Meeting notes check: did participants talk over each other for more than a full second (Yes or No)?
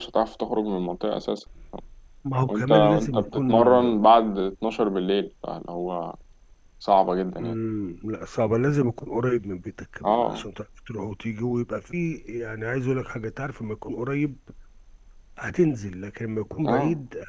Yes